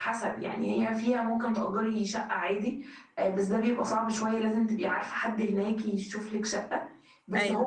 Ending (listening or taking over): listening